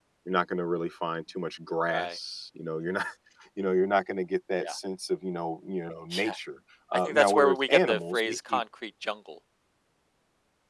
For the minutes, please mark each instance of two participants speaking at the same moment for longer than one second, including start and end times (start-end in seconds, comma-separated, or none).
6.9-8.6